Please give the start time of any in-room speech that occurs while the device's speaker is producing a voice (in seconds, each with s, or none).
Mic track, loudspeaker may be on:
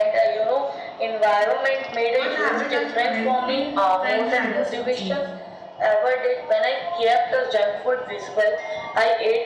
2.1 s